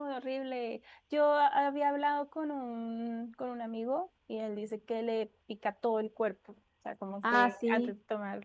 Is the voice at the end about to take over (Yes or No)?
No